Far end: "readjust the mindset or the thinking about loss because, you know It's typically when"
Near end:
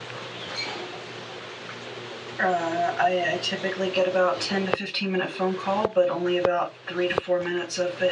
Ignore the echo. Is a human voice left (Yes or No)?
Yes